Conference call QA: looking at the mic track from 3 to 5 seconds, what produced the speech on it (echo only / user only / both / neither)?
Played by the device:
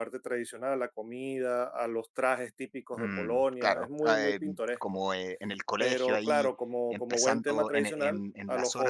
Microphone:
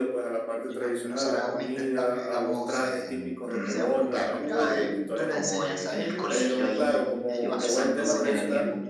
both